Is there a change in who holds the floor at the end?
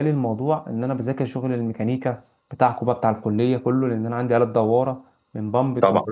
No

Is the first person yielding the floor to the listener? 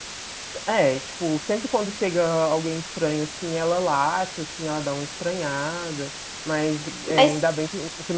No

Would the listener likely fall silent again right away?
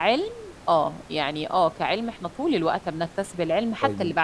No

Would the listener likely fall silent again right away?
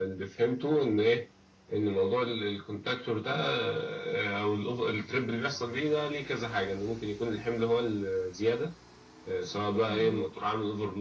Yes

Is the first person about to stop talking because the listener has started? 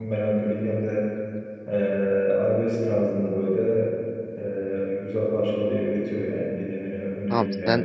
Yes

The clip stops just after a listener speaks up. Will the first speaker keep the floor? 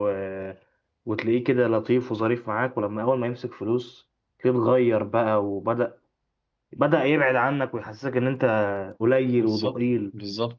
No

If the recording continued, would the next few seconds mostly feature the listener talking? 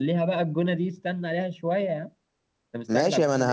Yes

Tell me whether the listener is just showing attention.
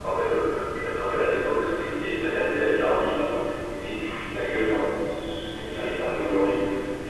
Yes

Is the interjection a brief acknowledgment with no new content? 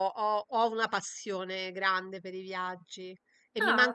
Yes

